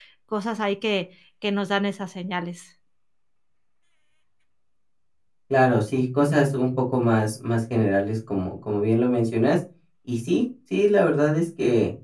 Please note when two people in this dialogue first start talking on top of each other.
none

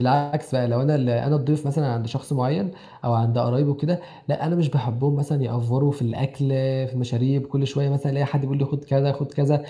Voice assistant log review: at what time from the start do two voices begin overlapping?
none

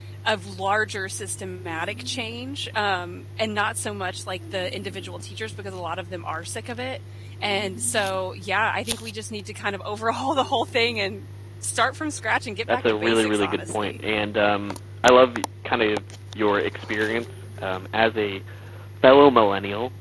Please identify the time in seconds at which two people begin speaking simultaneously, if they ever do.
12.7 s

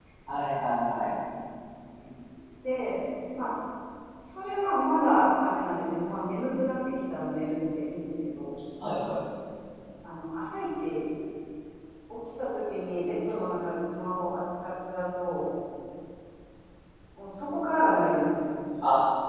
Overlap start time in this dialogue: none

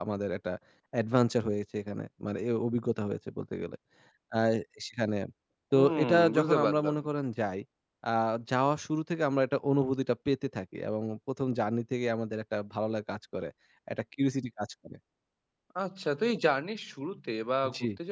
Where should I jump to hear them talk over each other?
5.8 s

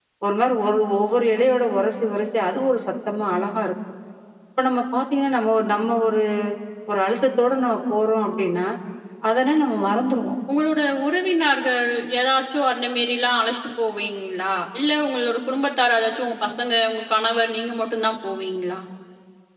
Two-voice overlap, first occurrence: none

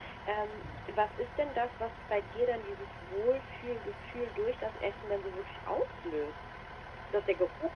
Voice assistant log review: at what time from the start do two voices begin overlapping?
none

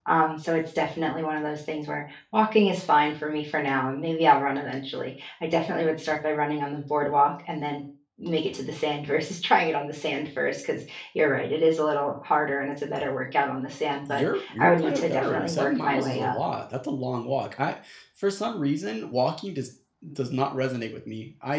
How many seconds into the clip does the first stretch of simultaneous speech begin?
14.1 s

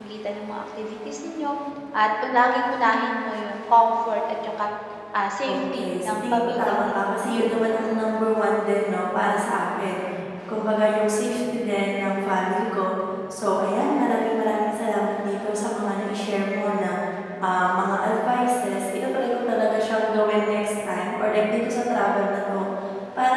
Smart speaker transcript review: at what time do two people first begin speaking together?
5.5 s

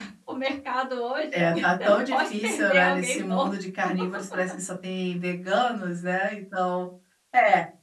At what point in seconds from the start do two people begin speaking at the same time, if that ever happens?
1.3 s

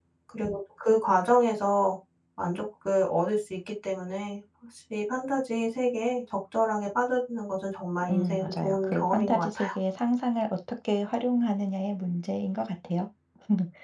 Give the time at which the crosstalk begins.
8.0 s

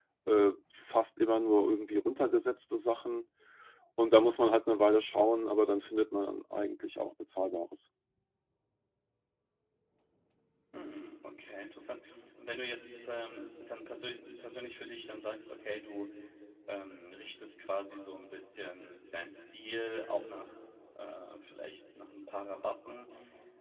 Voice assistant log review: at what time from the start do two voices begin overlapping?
none

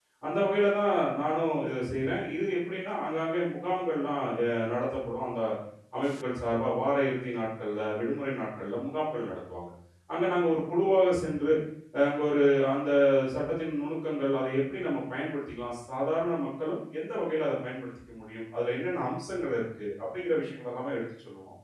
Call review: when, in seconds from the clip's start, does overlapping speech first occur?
none

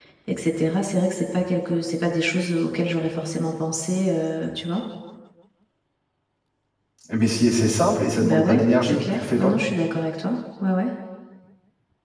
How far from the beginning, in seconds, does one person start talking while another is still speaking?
8.2 s

